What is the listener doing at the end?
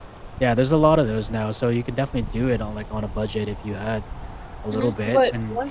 taking over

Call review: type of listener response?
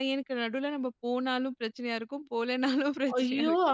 taking over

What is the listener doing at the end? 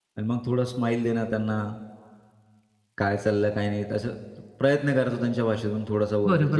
taking over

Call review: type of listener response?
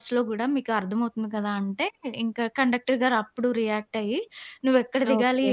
listening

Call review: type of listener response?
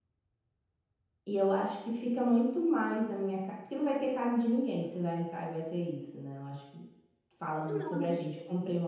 listening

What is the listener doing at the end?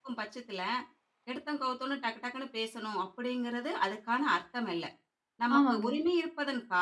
listening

